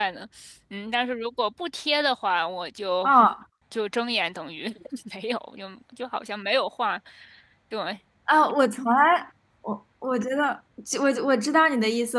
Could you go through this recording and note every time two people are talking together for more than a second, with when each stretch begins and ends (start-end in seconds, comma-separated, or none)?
none